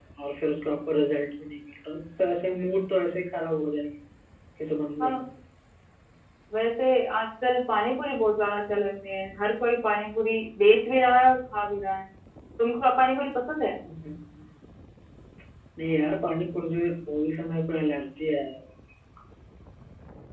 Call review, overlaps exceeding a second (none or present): none